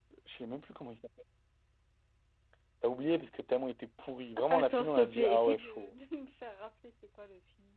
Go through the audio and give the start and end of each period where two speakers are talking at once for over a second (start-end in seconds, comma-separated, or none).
4.5-5.9